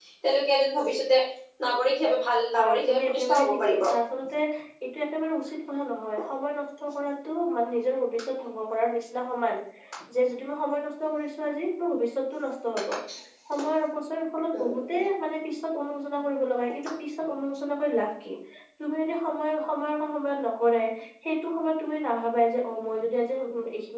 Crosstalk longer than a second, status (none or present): present